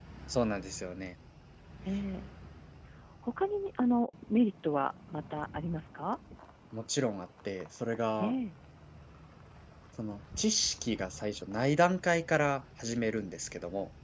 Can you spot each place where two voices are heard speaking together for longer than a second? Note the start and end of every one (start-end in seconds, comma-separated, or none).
none